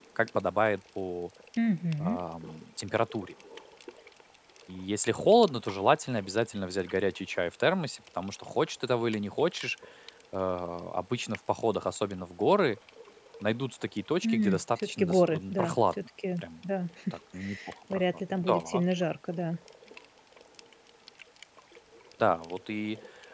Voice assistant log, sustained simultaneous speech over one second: present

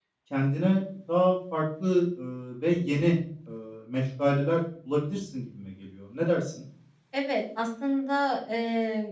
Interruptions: none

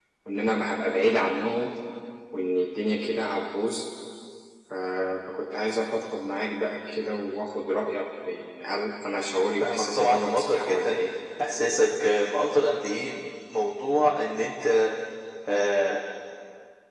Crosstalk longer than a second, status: present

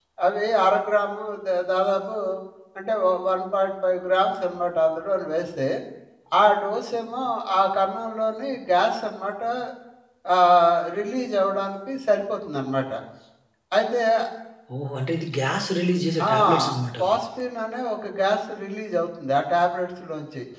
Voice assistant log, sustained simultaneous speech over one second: none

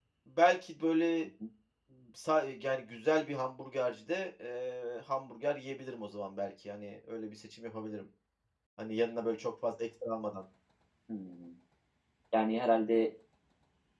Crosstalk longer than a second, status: none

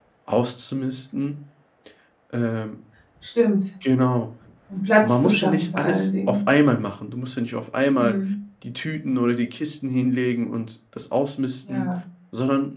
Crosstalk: present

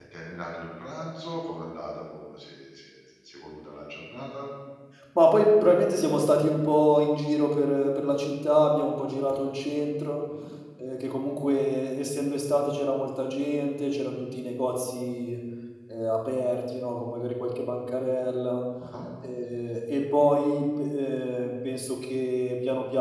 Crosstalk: none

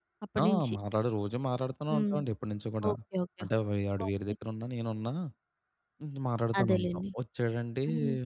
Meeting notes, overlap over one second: none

